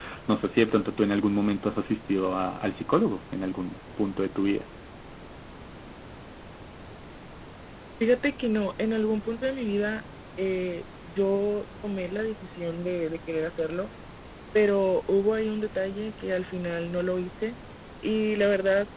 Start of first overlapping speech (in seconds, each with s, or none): none